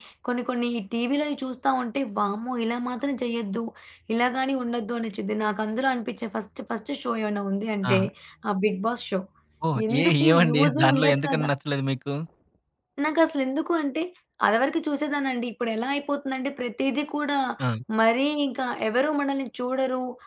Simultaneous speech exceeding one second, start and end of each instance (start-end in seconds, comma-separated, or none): 9.9-11.5